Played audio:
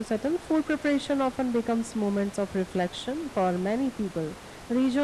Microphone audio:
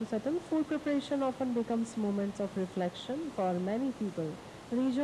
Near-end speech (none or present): none